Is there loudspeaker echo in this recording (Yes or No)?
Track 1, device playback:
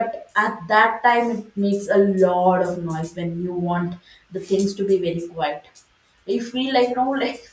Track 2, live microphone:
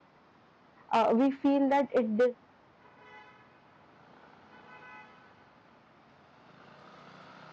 No